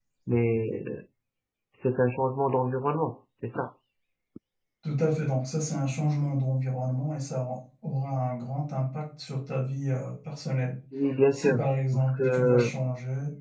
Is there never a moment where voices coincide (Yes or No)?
No